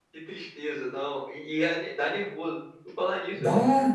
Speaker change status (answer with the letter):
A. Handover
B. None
B